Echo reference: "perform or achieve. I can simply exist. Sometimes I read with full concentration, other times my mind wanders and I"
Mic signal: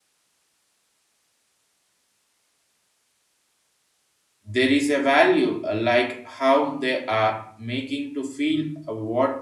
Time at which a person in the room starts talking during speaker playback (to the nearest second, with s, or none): 5 s